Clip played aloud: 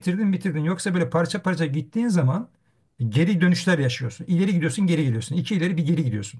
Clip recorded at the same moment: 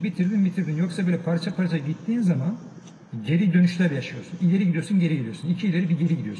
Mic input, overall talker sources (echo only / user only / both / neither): echo only